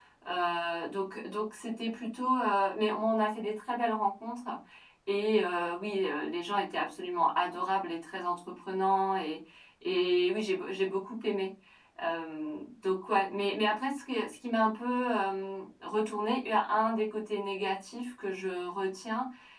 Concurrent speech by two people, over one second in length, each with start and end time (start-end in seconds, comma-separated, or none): none